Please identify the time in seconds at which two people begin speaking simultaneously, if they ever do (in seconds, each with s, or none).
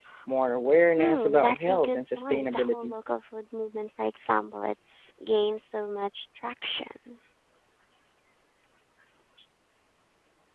0.7 s